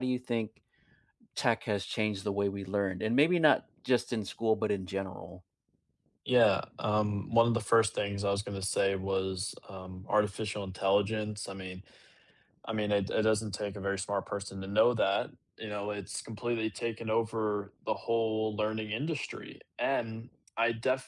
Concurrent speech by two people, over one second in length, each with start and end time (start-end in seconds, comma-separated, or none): none